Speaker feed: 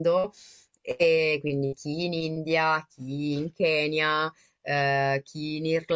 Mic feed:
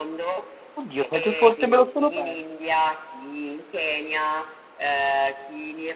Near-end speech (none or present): present